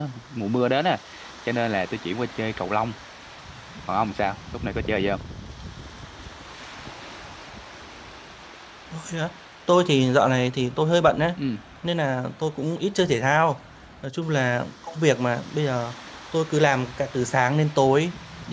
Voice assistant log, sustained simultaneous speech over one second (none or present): none